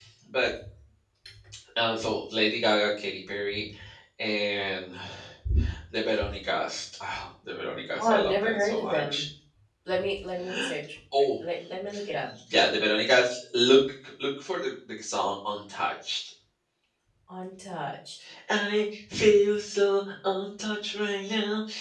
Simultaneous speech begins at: 8.0 s

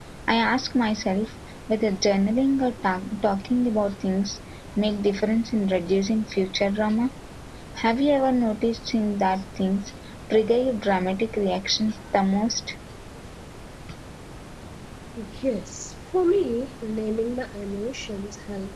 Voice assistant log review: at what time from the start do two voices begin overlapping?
none

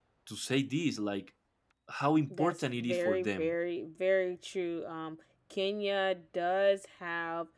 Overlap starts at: 2.3 s

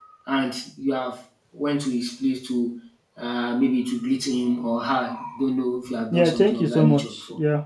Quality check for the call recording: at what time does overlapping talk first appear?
6.1 s

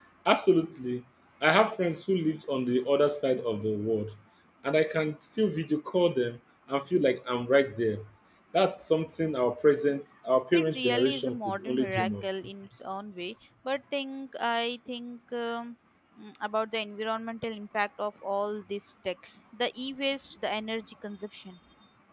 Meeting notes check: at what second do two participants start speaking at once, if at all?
10.5 s

